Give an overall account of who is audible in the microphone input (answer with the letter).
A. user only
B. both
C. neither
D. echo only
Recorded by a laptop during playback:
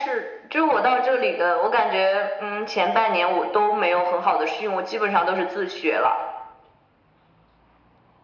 D